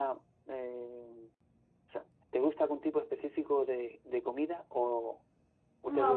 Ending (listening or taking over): taking over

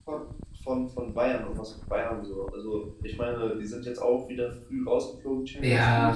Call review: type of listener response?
taking over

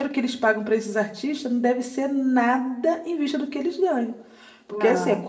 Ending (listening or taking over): listening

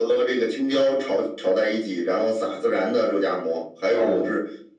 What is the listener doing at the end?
listening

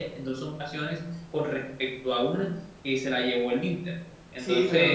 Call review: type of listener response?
taking over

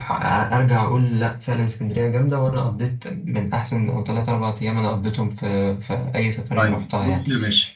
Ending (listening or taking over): taking over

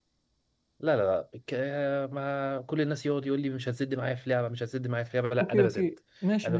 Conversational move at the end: taking over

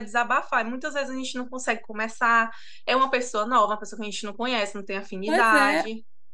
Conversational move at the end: taking over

